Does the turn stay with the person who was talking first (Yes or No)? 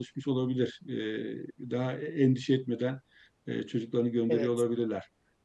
Yes